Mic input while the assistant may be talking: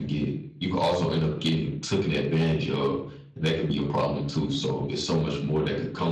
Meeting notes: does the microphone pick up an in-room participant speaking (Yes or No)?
Yes